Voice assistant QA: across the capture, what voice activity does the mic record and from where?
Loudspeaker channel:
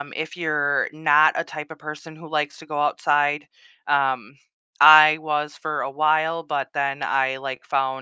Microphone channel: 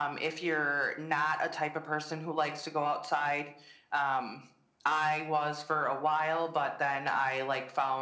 echo only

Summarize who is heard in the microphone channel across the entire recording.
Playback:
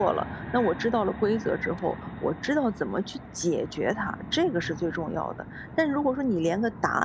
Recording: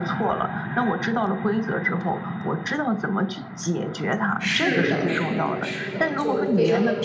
both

